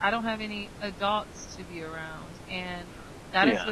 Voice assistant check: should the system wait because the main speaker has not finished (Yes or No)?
Yes